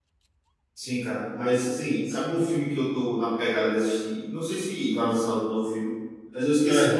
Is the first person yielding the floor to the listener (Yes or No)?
No